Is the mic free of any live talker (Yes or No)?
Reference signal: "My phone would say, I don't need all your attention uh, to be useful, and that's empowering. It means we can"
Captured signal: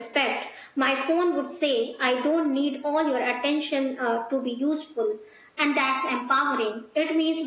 Yes